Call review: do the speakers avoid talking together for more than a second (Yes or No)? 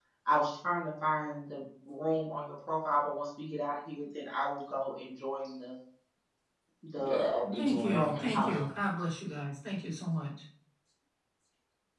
No